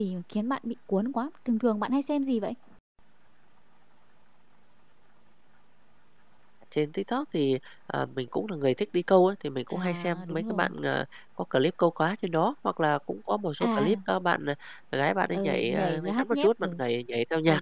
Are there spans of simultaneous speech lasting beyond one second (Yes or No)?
Yes